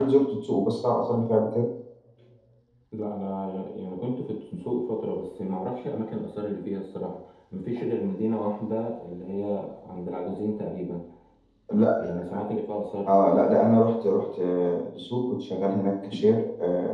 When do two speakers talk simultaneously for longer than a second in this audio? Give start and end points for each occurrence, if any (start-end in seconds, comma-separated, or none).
none